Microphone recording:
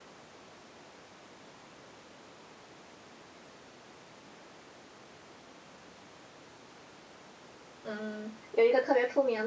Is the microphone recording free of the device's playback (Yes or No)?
Yes